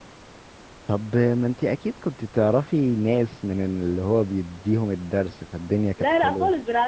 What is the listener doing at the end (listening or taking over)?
taking over